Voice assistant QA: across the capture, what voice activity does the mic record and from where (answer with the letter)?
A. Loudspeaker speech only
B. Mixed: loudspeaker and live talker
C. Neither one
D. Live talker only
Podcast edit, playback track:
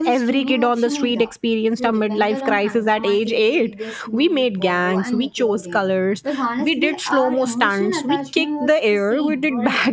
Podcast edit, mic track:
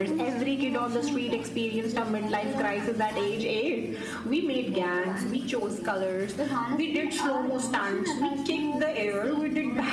A